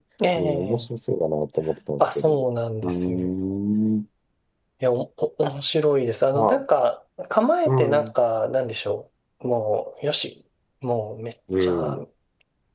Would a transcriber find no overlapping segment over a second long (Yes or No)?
Yes